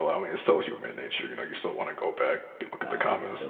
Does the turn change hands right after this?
Yes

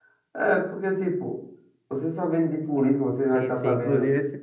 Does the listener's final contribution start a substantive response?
Yes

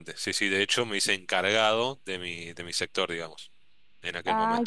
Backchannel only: No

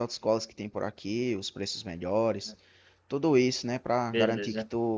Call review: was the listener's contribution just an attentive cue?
Yes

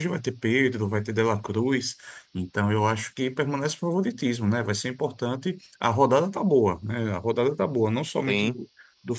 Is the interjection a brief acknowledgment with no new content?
Yes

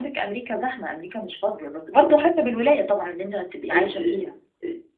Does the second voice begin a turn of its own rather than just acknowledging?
Yes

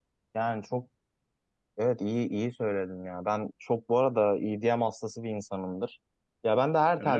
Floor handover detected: No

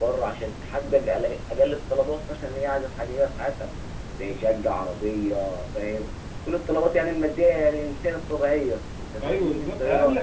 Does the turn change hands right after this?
Yes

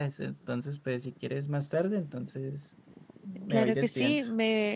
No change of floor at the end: No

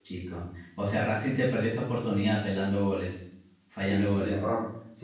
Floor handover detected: Yes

